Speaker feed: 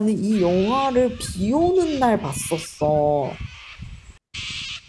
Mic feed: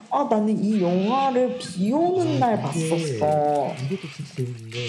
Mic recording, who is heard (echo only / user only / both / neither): both